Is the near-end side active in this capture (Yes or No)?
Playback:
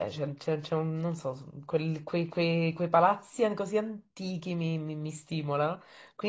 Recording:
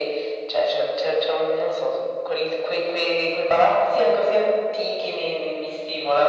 No